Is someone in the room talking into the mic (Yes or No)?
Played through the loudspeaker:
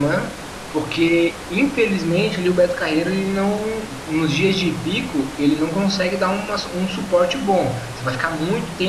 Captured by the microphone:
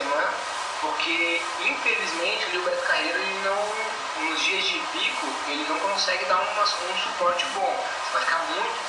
No